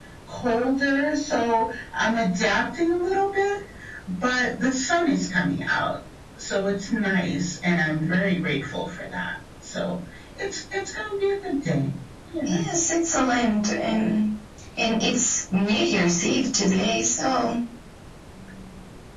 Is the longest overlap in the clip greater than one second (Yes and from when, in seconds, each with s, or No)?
No